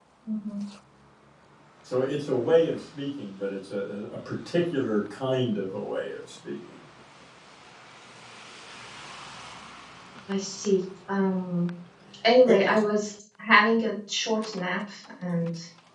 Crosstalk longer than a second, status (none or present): none